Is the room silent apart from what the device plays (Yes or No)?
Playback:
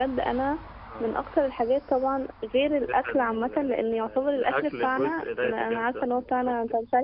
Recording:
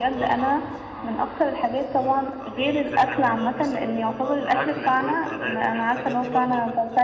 No